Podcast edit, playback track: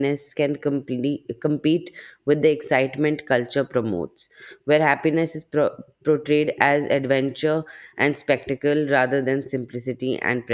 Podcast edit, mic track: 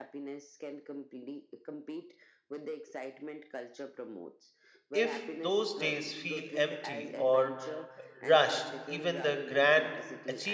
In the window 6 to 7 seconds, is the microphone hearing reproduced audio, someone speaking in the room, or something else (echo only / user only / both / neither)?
both